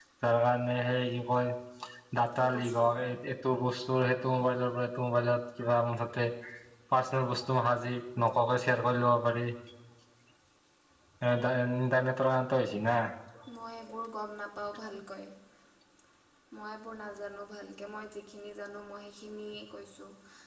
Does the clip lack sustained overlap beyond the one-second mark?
Yes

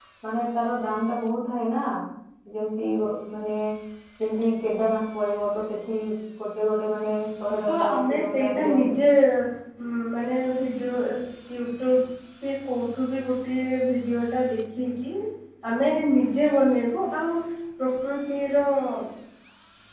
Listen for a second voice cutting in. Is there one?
Yes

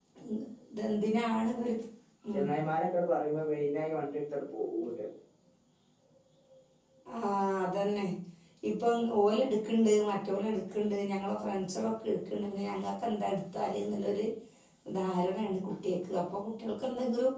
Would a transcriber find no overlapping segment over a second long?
Yes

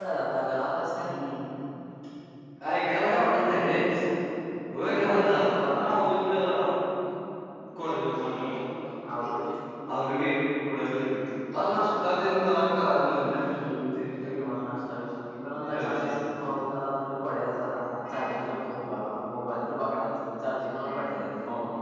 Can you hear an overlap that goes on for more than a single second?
Yes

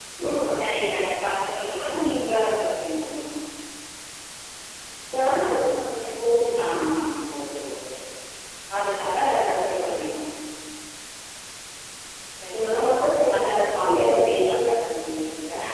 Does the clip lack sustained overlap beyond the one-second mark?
No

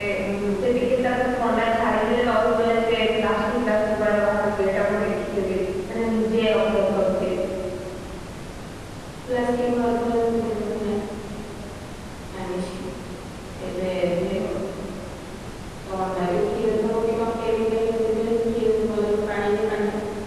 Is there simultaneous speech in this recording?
No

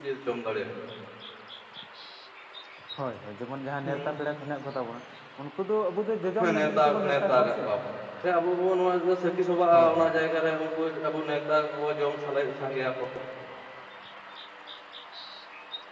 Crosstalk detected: Yes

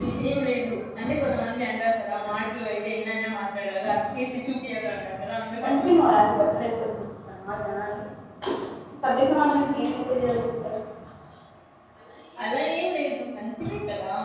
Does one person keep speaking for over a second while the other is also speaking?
No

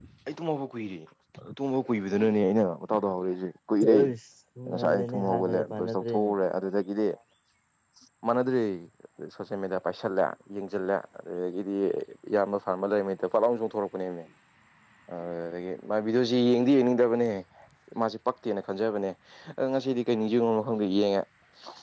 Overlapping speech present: Yes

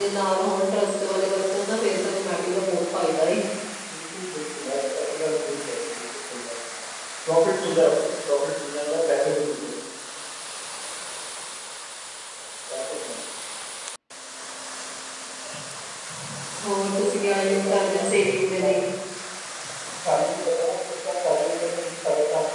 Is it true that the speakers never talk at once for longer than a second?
No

